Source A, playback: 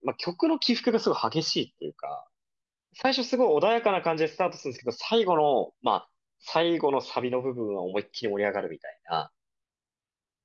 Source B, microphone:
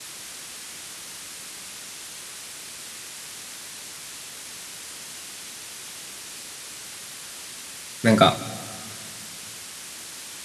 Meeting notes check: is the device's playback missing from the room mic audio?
Yes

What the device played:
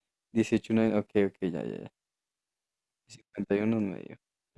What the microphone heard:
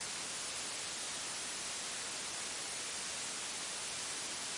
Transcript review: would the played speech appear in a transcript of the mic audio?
No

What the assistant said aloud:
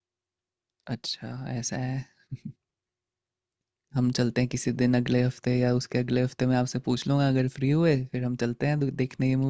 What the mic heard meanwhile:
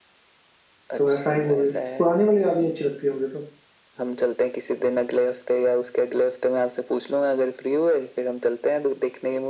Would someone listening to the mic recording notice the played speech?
Yes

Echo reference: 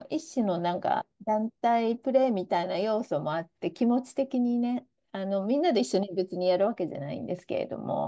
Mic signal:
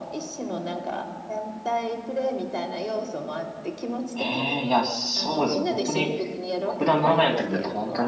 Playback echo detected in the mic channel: Yes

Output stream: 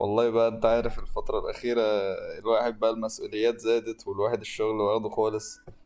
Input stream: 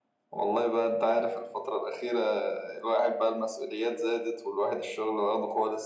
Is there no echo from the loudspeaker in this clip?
No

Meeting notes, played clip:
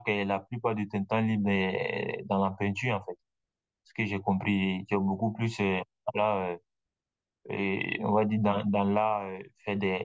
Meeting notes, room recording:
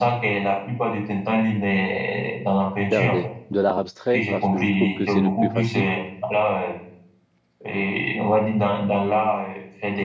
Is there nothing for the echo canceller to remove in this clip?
No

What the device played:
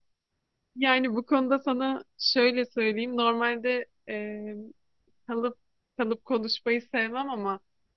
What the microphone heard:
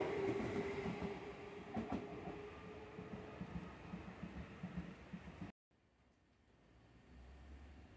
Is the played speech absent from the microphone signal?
Yes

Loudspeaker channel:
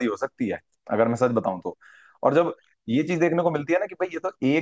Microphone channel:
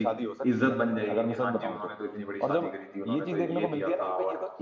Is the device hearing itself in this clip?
Yes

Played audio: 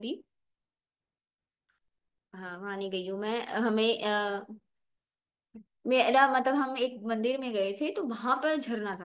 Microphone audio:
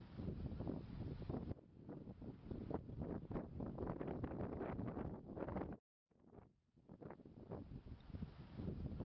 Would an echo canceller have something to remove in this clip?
No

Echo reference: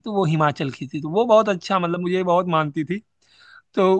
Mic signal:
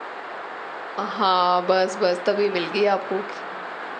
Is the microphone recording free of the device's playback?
Yes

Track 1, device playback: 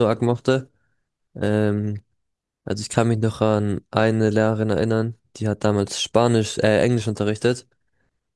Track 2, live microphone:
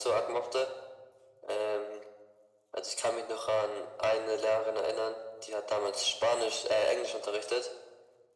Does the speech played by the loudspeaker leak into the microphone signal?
Yes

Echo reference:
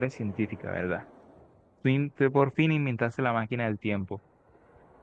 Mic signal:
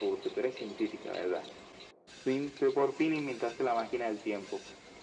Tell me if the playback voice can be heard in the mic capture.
Yes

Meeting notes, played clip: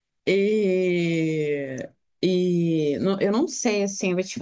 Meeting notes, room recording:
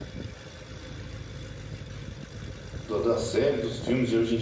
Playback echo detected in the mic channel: No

